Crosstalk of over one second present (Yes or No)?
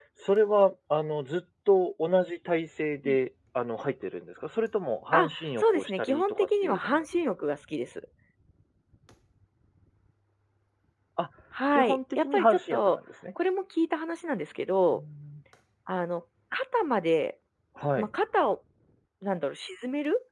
Yes